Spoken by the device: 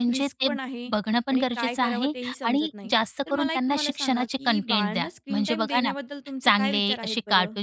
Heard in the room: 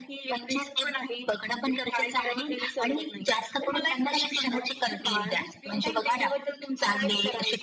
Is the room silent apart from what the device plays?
Yes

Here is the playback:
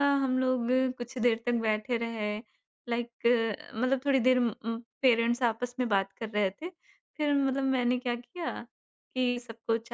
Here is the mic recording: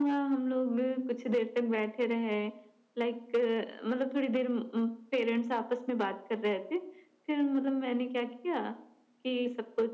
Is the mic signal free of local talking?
Yes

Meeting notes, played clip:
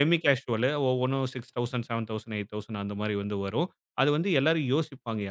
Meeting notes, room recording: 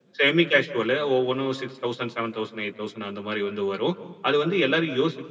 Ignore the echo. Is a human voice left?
No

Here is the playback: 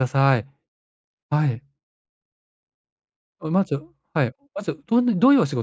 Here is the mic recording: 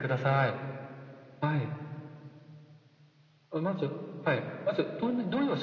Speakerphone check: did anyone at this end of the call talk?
No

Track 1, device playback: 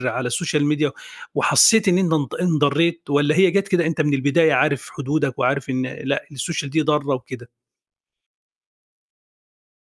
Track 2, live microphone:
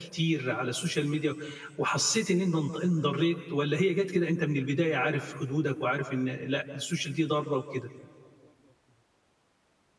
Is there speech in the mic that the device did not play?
No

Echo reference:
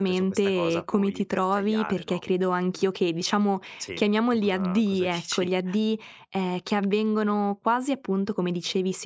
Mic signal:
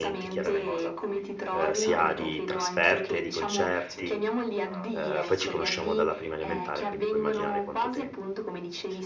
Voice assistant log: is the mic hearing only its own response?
No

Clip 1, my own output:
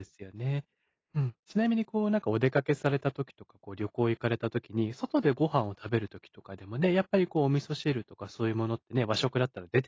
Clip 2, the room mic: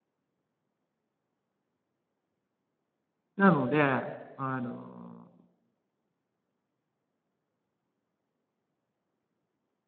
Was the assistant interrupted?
Yes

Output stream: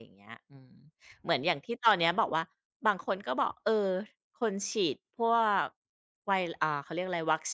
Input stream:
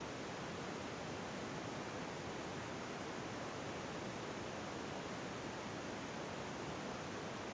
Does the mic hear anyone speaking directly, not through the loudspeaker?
No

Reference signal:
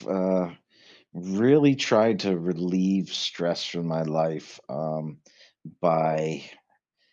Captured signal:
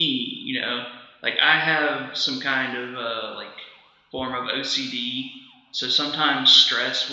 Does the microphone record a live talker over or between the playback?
Yes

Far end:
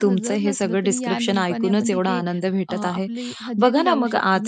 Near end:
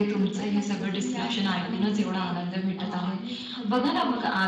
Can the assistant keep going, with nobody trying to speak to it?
Yes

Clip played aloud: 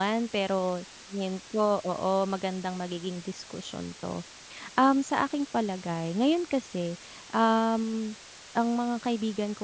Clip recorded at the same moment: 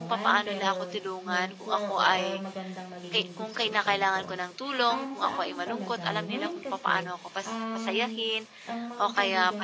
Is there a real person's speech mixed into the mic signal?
Yes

